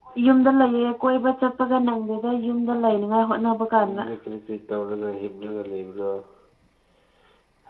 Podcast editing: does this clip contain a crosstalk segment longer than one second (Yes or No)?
No